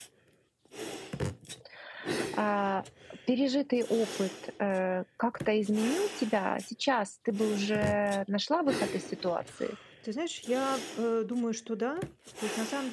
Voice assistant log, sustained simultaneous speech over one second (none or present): none